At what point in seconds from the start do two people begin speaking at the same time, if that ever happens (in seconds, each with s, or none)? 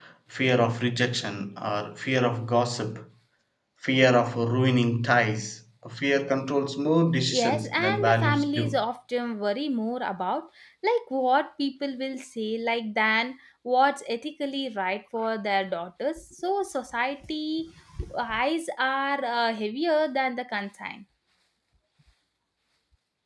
7.3 s